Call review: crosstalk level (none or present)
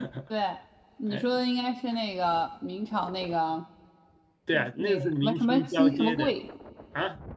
present